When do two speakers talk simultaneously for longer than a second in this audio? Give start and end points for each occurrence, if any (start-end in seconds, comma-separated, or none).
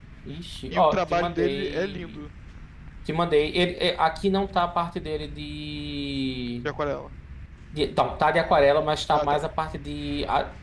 0.7-2.2